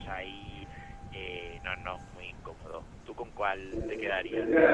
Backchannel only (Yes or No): No